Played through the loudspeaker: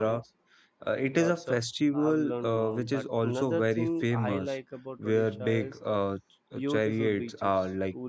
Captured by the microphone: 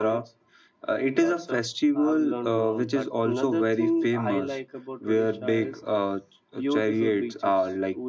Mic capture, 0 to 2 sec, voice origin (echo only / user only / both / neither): echo only